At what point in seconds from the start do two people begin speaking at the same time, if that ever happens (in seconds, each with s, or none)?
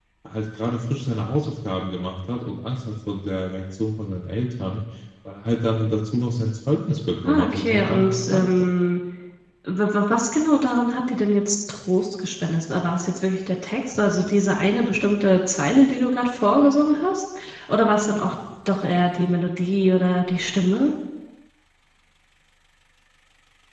7.2 s